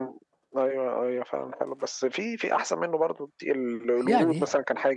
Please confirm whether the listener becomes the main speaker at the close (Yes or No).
No